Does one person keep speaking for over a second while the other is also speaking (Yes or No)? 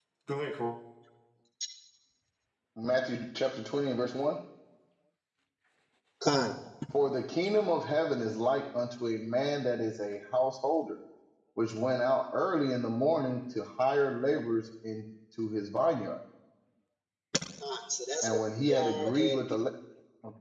Yes